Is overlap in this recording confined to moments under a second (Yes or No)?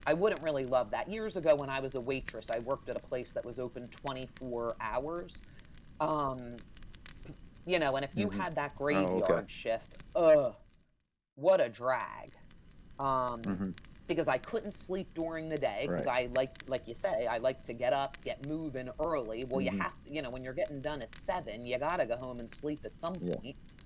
Yes